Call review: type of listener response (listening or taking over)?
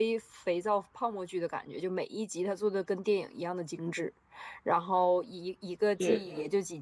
listening